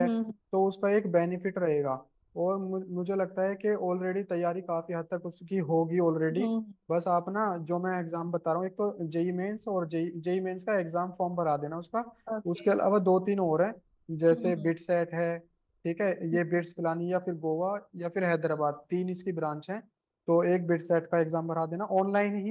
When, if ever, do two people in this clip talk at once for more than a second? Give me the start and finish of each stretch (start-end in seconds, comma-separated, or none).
none